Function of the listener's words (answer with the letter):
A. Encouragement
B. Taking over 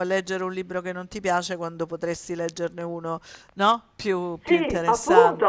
B